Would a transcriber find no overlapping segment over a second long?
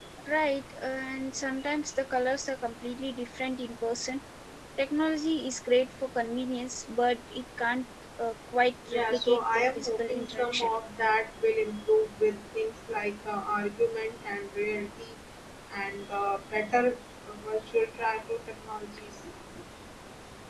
No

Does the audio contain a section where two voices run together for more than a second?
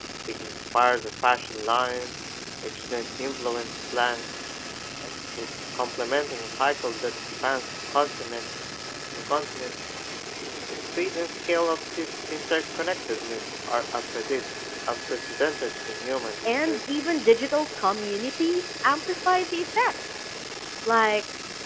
No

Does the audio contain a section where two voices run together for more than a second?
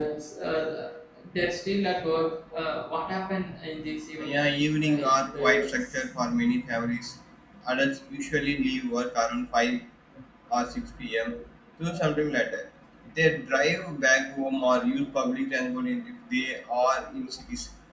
Yes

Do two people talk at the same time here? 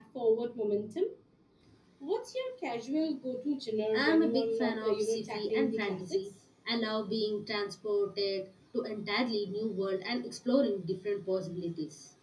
Yes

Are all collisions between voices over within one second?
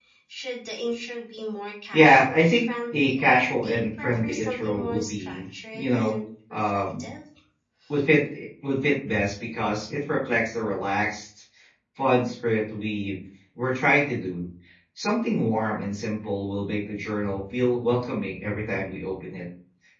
No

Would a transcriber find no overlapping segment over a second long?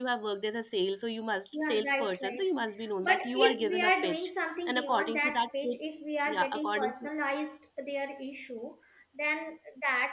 No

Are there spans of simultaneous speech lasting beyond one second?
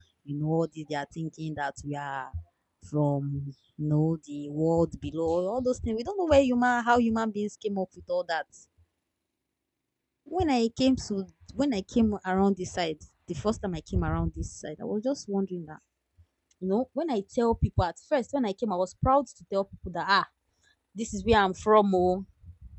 No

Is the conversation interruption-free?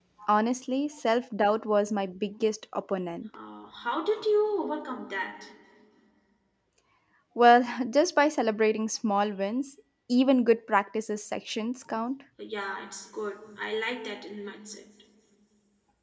Yes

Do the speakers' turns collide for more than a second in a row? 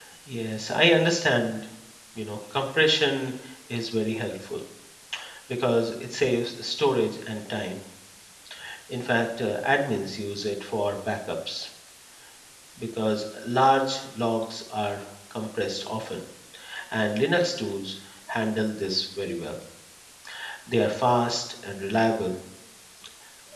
No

